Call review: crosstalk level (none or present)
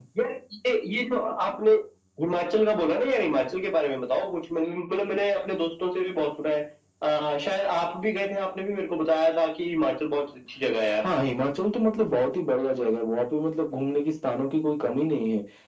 none